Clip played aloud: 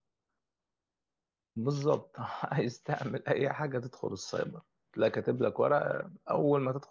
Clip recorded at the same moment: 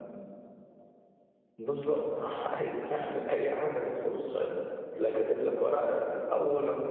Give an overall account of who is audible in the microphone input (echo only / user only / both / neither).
echo only